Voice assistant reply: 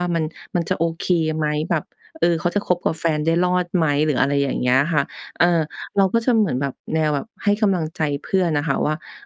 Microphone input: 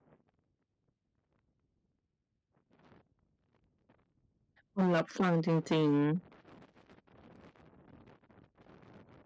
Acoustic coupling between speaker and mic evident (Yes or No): No